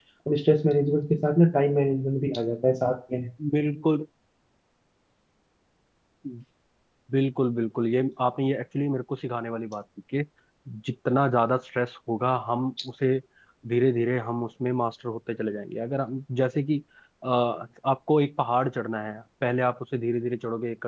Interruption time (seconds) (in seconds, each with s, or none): none